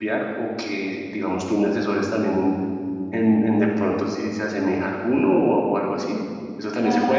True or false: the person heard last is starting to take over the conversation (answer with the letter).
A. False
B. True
B